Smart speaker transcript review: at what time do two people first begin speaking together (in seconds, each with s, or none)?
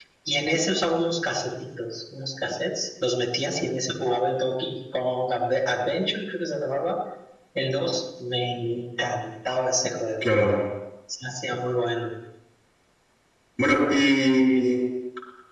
none